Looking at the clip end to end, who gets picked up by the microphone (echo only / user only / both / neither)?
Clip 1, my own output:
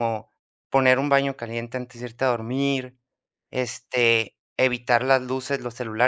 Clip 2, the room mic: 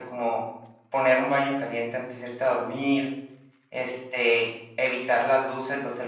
echo only